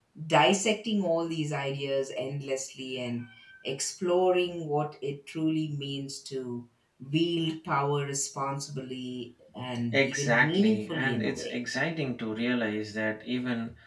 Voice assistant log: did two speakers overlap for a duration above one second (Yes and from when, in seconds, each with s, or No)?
Yes, from 9.9 s